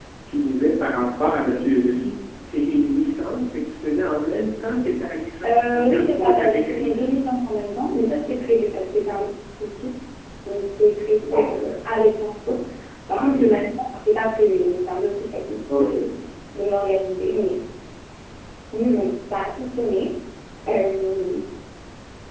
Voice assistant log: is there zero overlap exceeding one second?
No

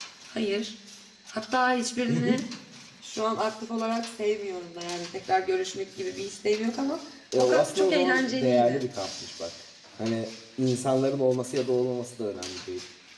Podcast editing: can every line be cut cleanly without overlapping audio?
No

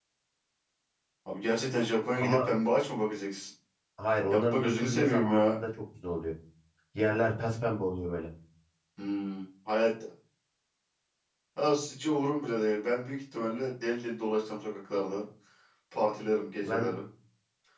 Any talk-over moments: Yes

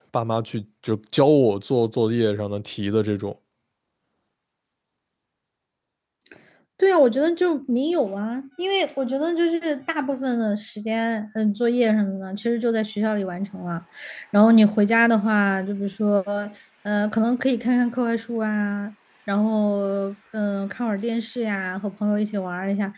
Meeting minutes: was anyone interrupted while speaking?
No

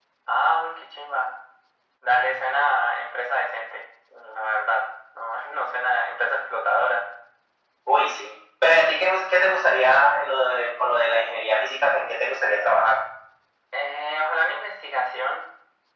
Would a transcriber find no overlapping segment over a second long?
Yes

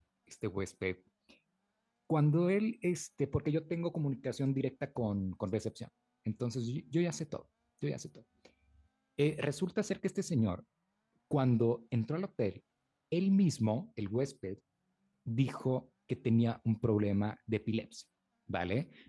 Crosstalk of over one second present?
No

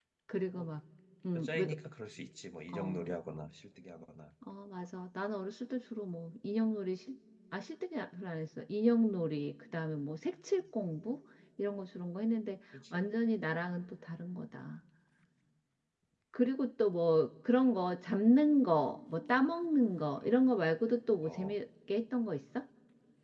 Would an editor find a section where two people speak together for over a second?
No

